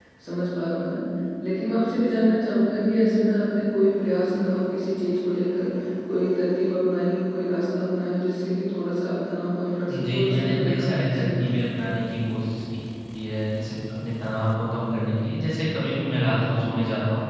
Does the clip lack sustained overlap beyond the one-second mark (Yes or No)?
No